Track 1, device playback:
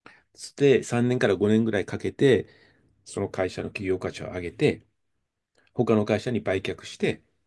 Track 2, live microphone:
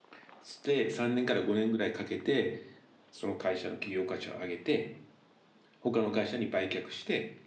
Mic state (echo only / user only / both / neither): echo only